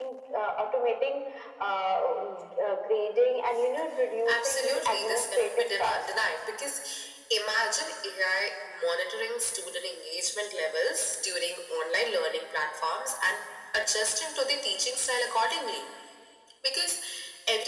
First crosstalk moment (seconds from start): 4.3 s

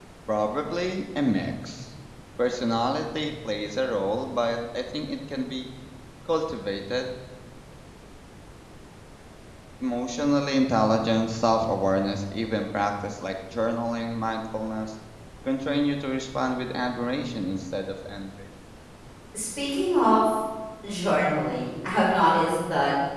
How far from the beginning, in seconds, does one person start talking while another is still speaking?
none

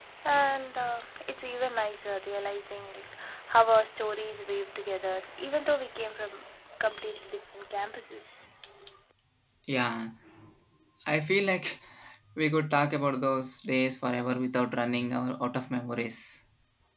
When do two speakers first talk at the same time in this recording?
none

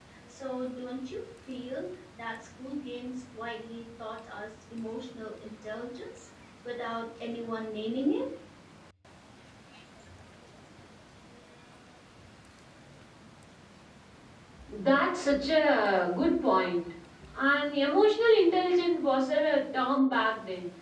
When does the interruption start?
none

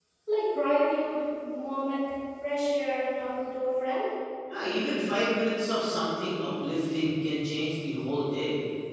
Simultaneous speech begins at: none

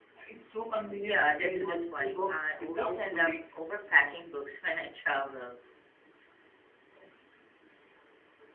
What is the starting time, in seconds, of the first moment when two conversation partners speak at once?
1.1 s

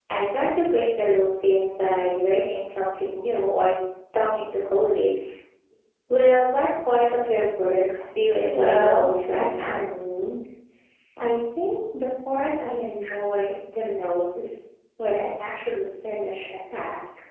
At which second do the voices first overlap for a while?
8.4 s

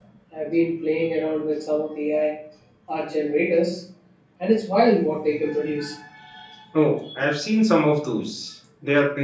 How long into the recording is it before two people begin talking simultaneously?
none

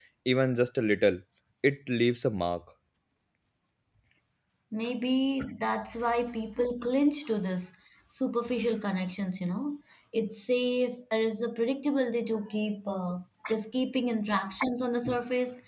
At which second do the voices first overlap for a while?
none

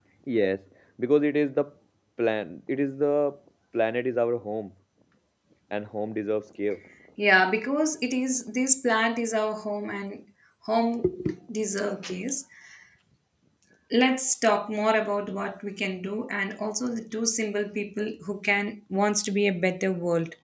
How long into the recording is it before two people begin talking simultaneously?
none

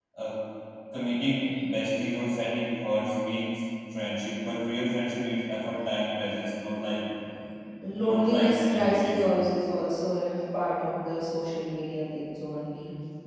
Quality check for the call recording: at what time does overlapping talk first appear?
8.0 s

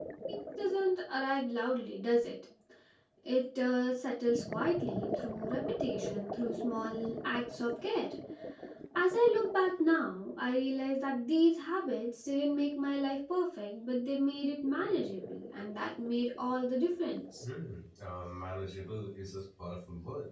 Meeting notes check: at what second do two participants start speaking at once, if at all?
none

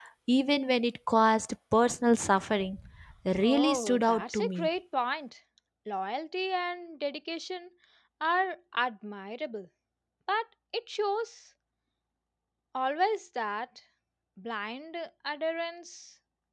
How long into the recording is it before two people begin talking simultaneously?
3.4 s

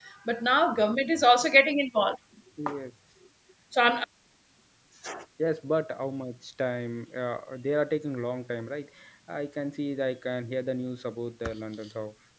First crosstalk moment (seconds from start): none

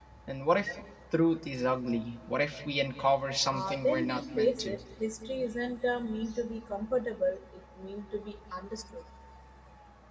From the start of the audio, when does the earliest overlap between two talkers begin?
3.5 s

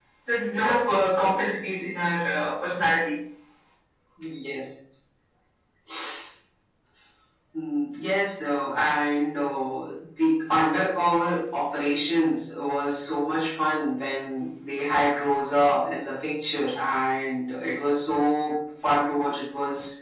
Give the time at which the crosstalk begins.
none

